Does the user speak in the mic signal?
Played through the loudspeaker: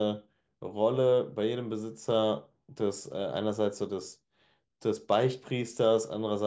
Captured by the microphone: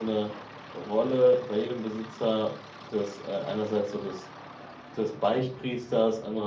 No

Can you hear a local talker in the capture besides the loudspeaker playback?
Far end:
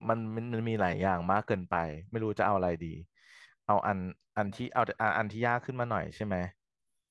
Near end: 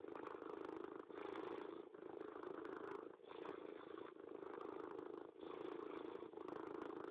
No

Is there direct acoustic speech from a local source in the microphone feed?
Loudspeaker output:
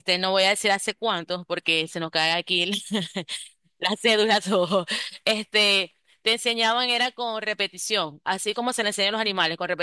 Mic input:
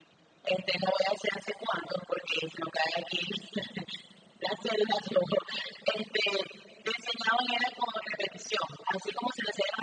No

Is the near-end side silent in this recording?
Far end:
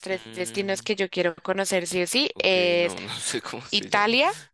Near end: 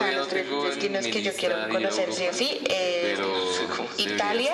No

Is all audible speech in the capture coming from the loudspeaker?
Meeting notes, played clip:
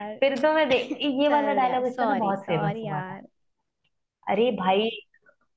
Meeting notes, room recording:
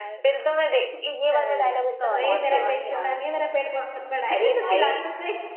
No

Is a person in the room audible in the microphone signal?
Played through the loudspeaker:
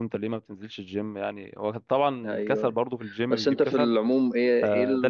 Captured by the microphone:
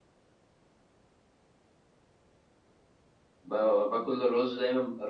Yes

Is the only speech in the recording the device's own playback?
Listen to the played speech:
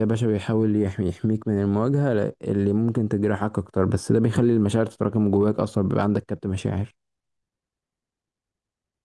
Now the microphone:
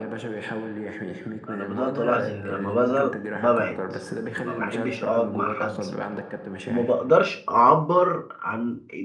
No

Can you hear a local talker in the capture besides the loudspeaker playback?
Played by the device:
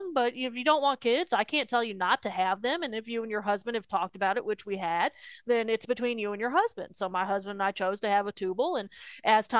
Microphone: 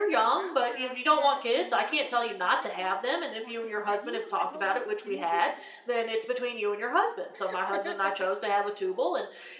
Yes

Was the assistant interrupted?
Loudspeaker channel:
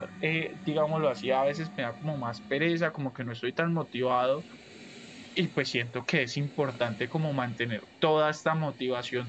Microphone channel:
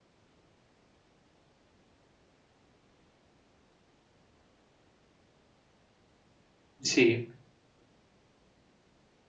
Yes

